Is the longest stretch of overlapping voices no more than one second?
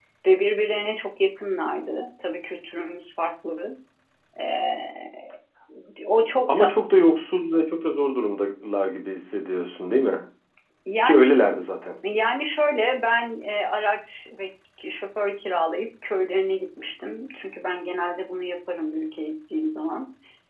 Yes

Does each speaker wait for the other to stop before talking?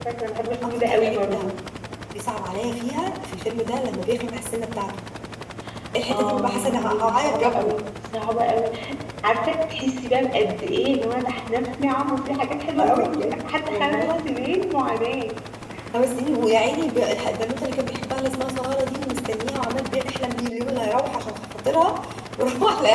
No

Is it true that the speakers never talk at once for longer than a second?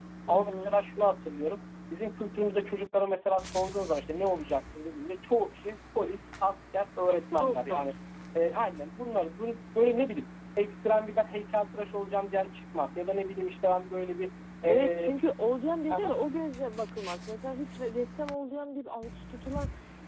Yes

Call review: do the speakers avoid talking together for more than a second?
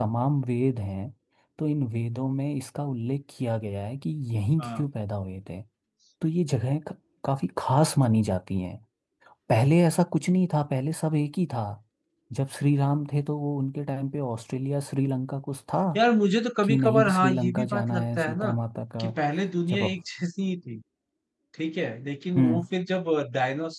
No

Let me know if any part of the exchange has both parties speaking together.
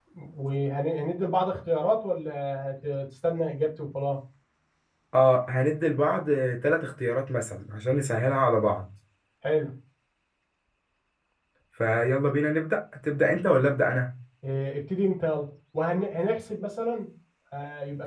No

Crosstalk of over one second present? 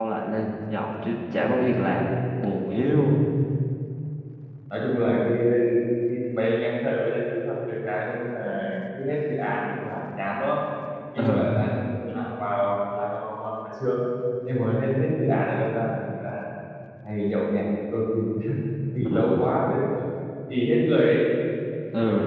No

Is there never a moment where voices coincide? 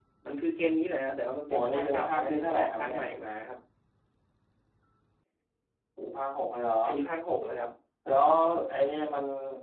No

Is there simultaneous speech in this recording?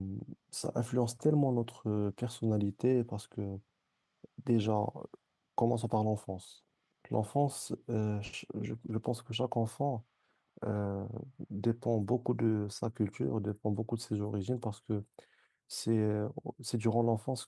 No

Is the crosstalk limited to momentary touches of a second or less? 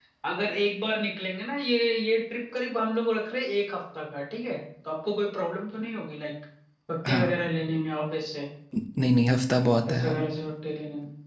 Yes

